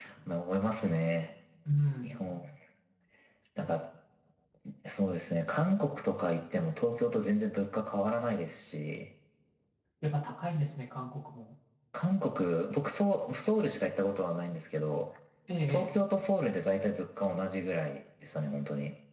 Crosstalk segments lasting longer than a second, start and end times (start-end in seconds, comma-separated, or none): none